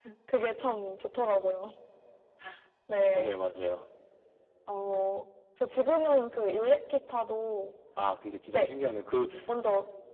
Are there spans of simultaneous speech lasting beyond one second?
No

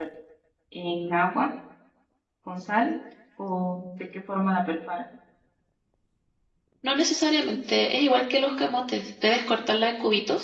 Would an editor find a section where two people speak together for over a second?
No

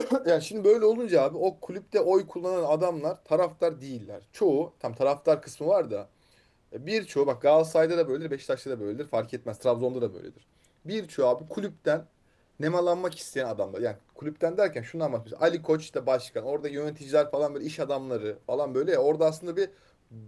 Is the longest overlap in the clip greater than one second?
No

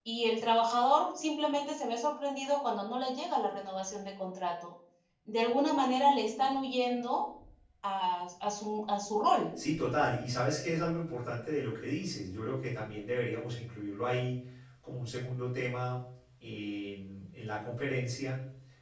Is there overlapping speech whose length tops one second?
No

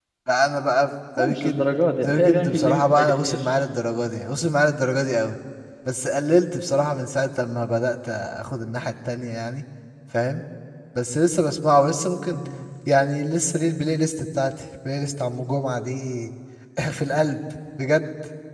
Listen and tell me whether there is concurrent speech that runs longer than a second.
Yes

